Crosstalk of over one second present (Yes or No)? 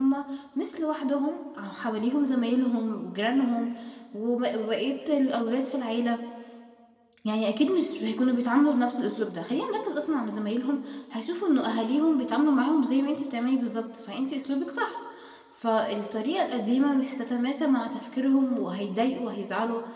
No